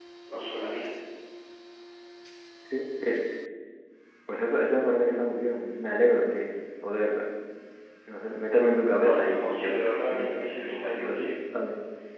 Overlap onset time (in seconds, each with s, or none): 9.0 s